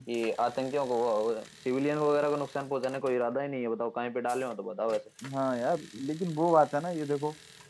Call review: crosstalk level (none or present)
none